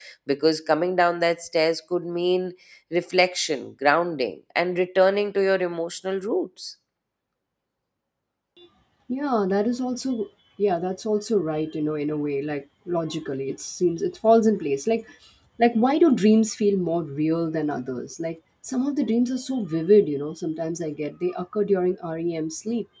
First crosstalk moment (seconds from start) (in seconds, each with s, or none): none